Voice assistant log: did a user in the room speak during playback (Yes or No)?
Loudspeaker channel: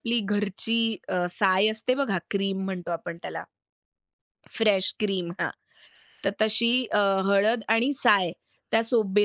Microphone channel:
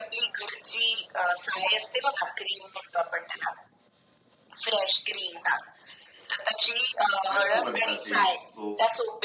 Yes